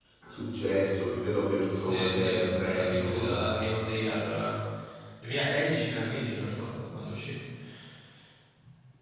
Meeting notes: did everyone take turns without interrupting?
No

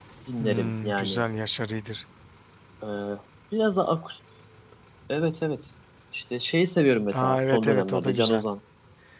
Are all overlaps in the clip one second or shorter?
No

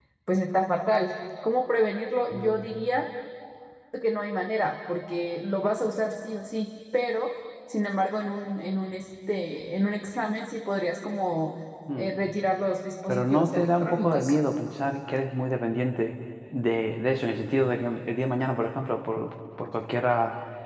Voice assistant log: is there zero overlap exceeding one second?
No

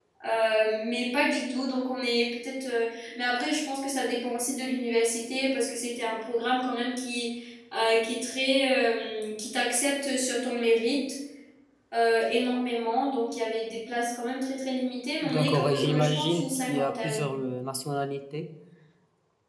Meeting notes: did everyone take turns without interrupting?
No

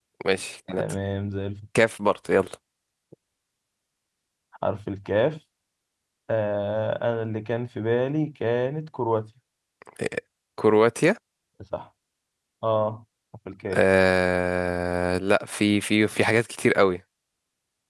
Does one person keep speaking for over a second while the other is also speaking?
No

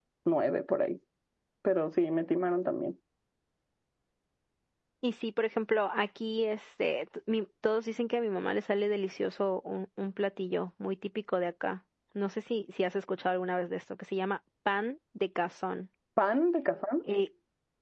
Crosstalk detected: No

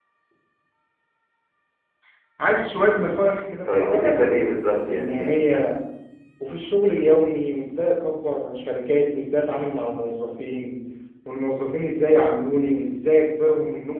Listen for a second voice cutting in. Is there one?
Yes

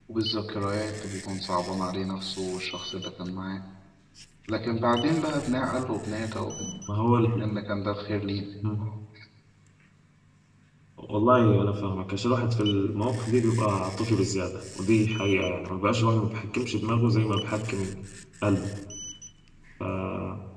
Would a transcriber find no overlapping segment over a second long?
Yes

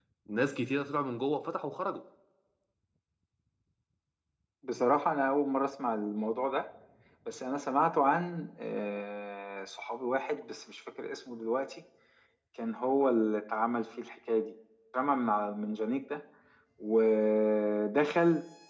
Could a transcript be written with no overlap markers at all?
Yes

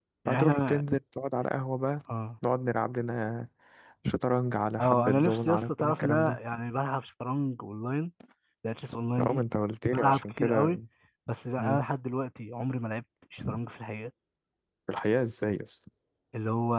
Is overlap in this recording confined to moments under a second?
No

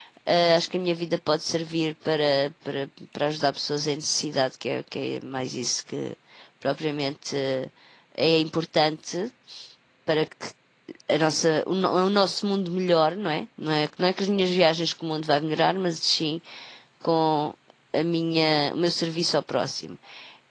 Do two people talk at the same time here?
No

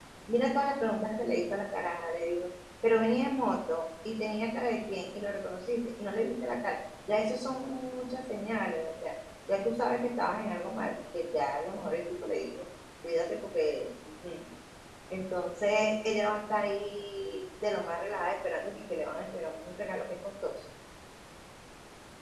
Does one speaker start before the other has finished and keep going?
No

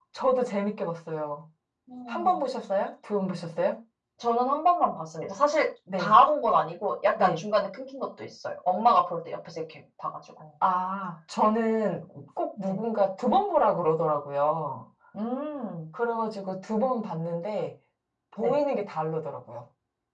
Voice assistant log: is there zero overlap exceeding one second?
Yes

